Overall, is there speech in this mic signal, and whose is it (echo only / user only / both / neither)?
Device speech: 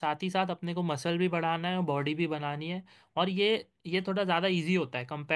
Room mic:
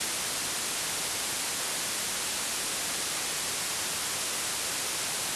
neither